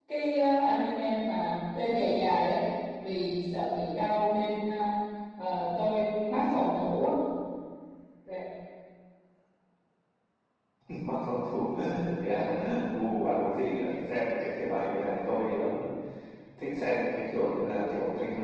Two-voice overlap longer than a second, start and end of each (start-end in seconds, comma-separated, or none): none